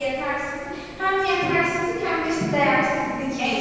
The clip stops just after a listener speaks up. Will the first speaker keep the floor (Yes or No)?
No